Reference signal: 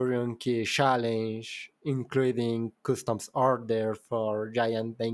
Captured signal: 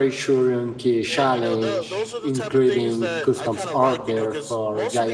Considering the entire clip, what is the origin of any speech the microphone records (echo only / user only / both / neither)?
both